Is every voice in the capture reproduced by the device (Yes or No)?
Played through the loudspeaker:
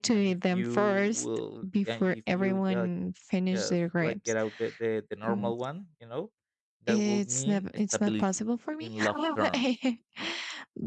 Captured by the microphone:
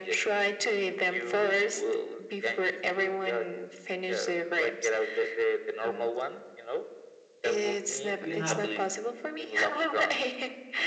No